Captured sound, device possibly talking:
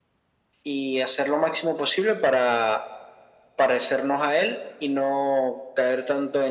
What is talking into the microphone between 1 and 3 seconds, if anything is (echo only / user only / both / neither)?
echo only